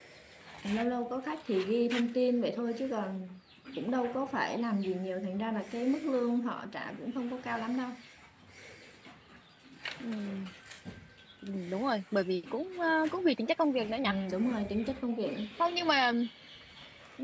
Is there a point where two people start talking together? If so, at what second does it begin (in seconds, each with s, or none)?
none